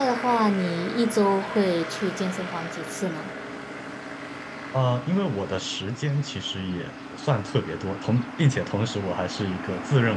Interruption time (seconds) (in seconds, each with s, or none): none